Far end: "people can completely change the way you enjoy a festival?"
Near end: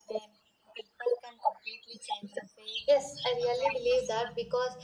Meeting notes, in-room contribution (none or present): present